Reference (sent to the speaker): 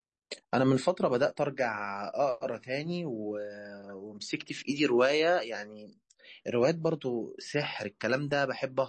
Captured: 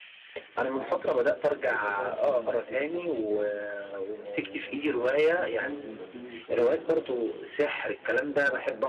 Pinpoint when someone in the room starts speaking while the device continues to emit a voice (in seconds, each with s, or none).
0.7 s